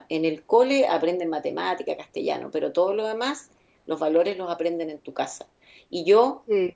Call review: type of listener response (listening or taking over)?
listening